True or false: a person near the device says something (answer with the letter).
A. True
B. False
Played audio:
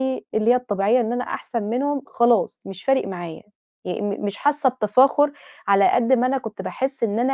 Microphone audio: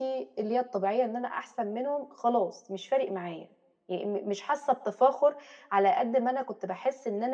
B